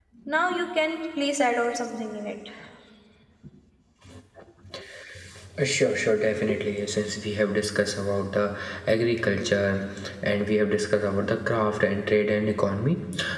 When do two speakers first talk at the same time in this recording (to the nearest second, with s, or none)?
none